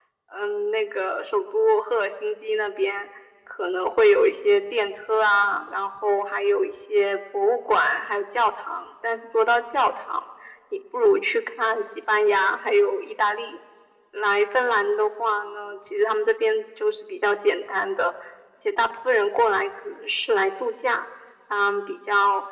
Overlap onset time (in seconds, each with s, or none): none